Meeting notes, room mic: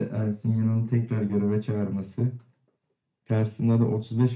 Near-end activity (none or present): none